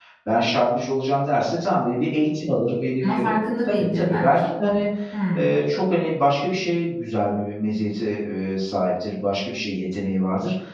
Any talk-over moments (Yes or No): Yes